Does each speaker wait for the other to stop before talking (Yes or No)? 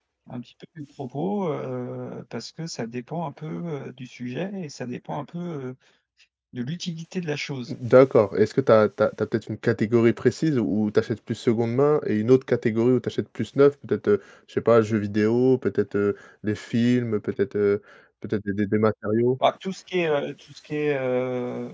Yes